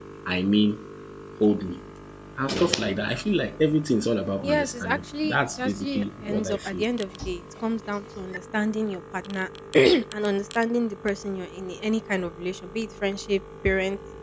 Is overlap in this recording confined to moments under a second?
No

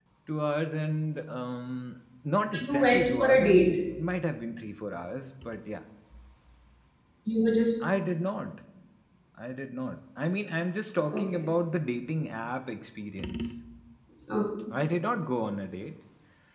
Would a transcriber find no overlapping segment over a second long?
No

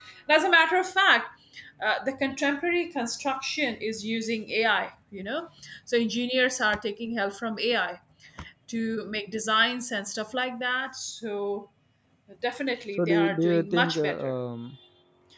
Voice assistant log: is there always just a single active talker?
No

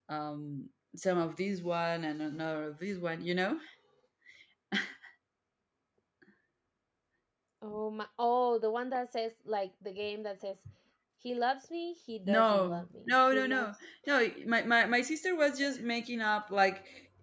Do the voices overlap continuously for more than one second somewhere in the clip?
Yes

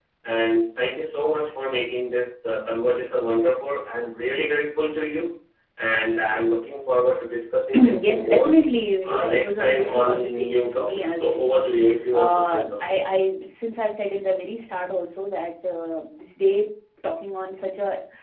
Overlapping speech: Yes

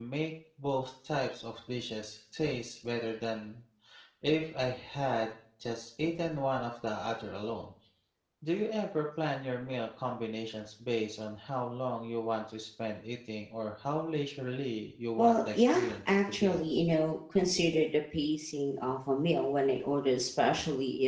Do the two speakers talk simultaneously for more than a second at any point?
Yes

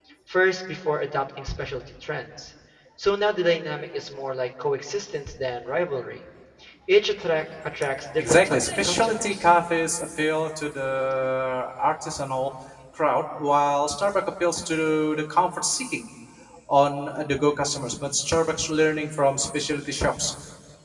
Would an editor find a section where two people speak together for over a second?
Yes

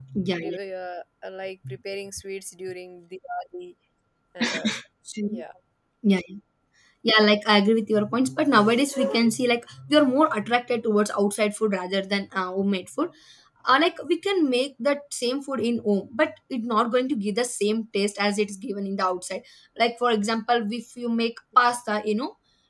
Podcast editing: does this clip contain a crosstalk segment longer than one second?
No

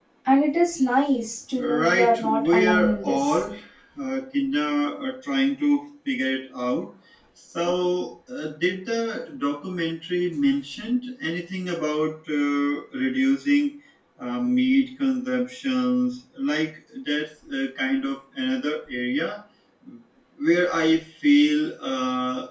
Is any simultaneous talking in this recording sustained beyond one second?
Yes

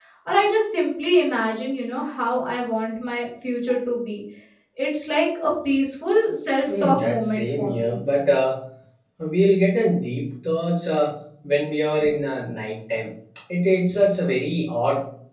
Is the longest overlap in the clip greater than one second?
Yes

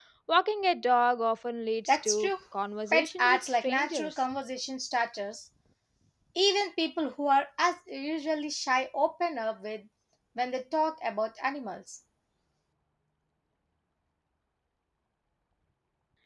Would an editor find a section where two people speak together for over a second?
Yes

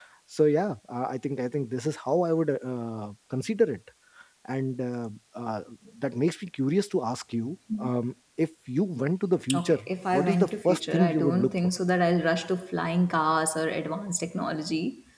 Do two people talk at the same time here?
Yes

